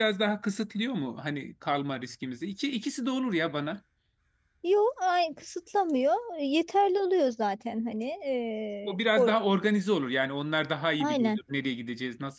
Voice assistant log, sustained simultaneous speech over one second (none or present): none